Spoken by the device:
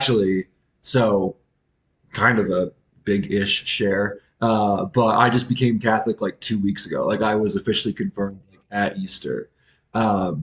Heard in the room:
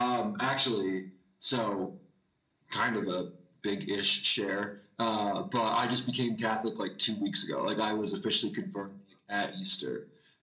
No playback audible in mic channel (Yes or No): No